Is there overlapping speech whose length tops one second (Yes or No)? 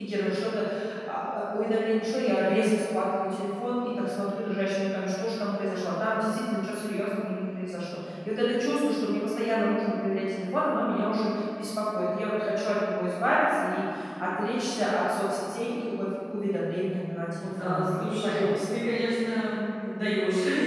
Yes